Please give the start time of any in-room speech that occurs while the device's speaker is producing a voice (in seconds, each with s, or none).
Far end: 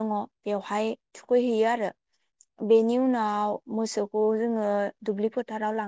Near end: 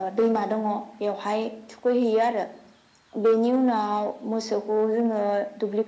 none